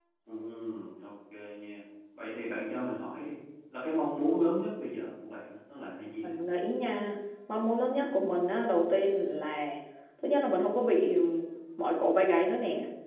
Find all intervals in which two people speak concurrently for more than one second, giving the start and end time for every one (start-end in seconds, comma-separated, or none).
none